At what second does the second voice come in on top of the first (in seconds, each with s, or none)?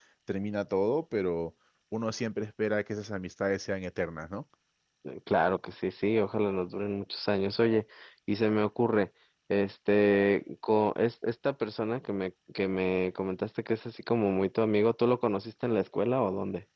none